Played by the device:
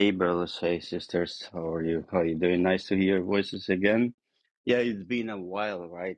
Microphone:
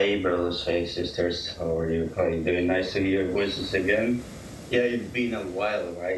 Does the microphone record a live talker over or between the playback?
No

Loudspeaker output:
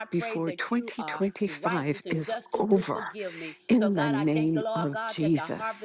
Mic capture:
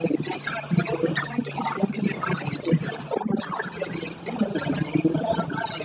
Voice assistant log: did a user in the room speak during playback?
No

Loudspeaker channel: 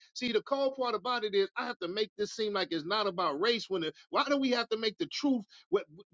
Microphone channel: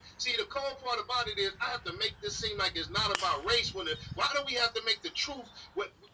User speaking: No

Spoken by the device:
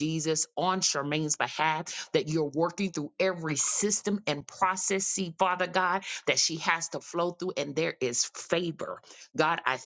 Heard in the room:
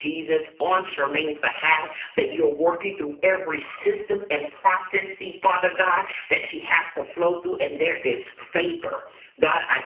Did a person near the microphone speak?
No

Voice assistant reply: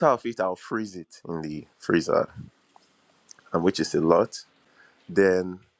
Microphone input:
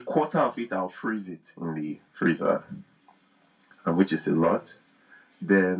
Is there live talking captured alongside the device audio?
No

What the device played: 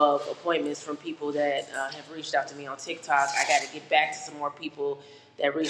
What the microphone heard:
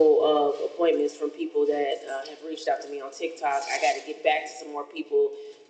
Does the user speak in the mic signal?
No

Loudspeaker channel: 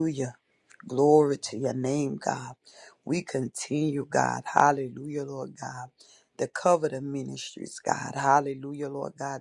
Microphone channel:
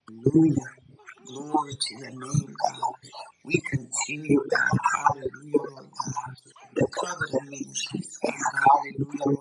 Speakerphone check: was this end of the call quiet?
Yes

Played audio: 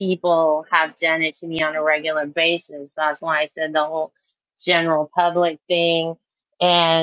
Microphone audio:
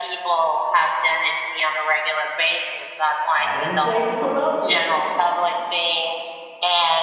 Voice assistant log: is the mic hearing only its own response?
No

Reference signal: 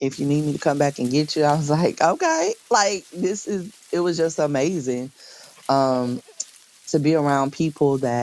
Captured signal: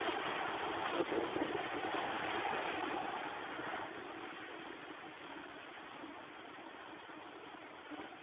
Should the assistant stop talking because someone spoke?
No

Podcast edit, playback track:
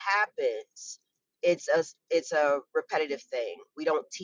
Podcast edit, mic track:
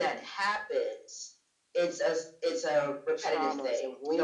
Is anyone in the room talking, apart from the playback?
Yes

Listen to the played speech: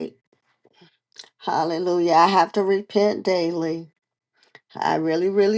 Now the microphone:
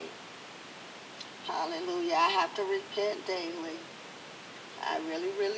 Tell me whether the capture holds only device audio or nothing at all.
Yes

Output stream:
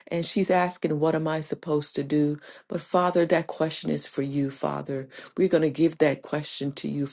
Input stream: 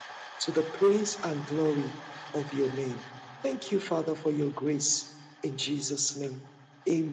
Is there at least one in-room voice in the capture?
Yes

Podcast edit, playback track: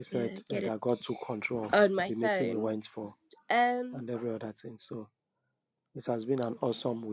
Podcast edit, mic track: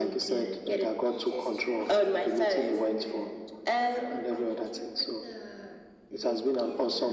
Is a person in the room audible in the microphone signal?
Yes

